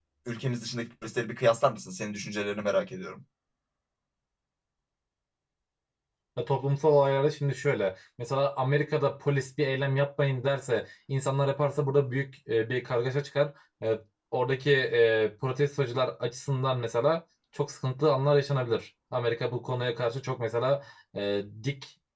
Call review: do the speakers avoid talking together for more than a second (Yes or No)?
Yes